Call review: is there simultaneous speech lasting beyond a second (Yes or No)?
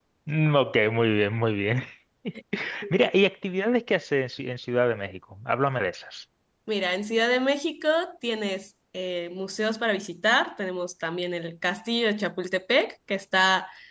No